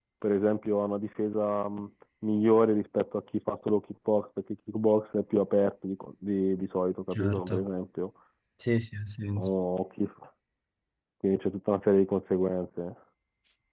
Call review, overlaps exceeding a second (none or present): none